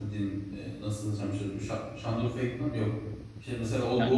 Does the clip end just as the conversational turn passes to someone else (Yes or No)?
No